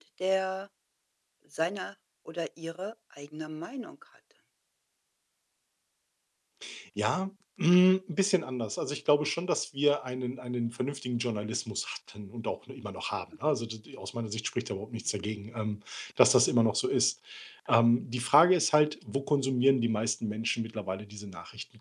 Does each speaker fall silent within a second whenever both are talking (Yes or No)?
Yes